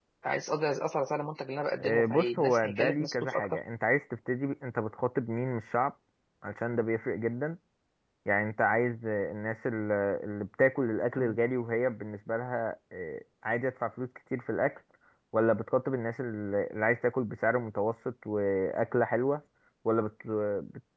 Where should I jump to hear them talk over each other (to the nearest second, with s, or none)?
2 s